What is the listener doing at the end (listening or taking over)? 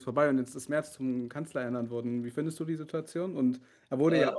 listening